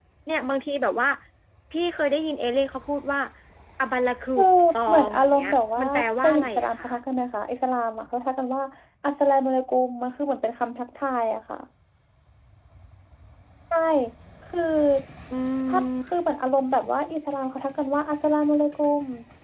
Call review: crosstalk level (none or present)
present